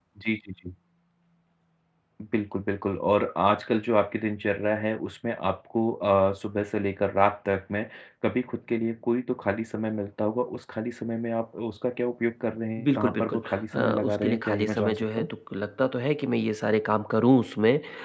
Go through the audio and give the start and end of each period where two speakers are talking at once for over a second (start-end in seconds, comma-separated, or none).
12.8-15.3